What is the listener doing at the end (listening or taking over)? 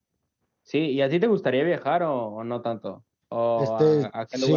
taking over